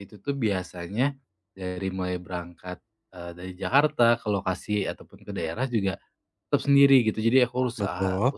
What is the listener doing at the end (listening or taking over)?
listening